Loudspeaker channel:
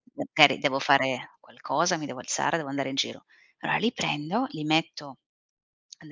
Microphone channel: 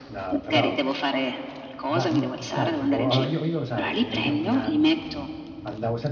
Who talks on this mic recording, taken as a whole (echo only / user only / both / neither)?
both